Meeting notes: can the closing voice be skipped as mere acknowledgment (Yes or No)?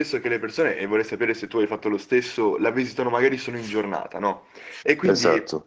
Yes